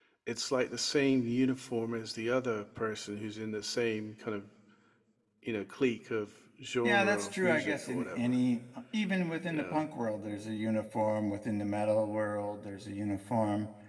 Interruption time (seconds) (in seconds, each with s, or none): 6.8 s